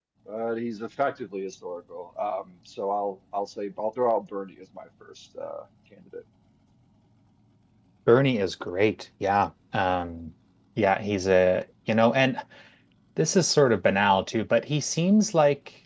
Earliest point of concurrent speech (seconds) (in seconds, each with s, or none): none